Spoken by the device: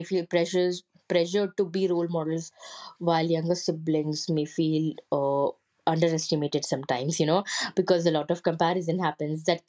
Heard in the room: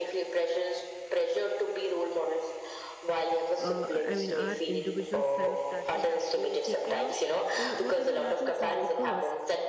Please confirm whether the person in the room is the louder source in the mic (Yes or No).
No